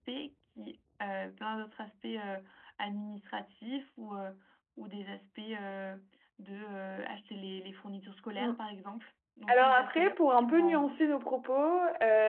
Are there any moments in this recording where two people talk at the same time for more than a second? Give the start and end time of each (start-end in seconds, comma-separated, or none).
9.5-11.0